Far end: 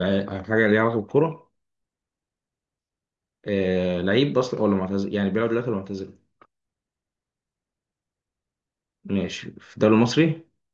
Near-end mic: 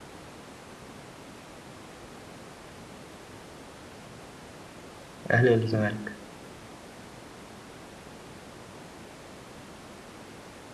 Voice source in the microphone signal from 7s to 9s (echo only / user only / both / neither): neither